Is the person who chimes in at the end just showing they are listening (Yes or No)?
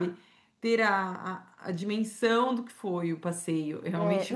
No